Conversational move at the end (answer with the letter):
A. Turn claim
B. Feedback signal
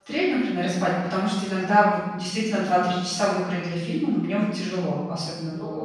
A